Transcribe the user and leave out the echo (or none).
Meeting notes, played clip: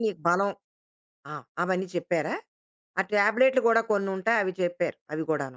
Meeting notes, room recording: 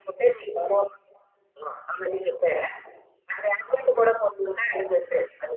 none